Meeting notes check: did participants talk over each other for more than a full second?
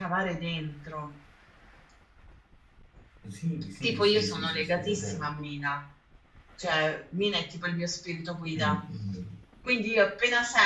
Yes, from 3.8 s

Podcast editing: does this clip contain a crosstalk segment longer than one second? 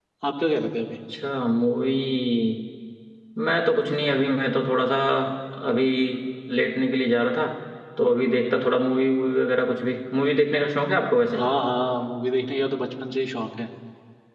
No

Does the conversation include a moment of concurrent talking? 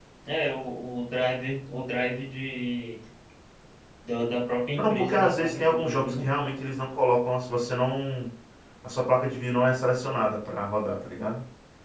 Yes, from 4.7 s

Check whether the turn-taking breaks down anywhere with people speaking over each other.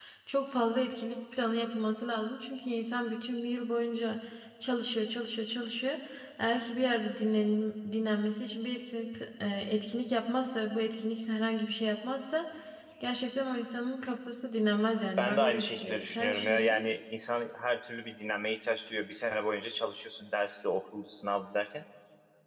Yes, from 15.2 s

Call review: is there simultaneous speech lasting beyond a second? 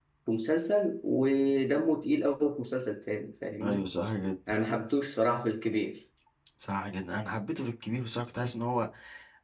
No

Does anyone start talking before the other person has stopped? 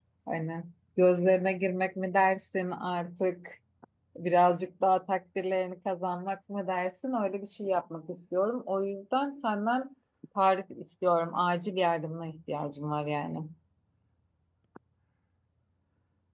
No

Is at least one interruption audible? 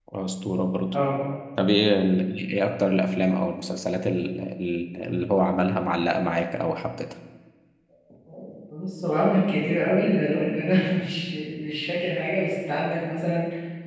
No

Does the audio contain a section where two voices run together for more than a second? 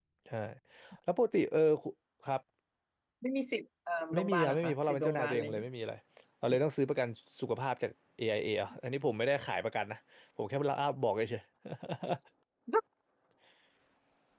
Yes, from 4.1 s

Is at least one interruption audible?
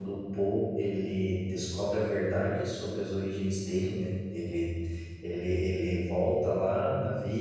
No

